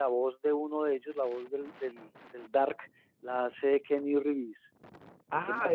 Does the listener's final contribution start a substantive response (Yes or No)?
Yes